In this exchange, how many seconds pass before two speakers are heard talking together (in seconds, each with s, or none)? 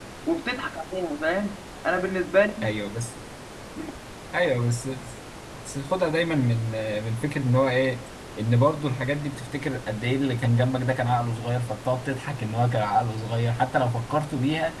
none